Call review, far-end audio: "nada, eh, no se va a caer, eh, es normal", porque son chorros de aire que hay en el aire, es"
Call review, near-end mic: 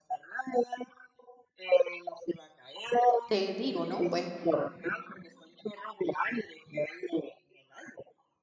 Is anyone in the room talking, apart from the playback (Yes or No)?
Yes